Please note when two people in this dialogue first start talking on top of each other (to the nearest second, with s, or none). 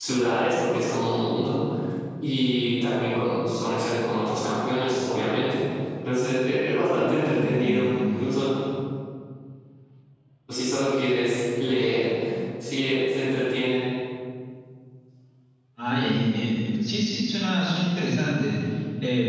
7 s